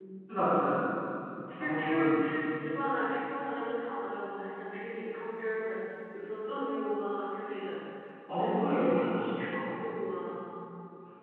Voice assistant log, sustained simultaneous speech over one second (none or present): present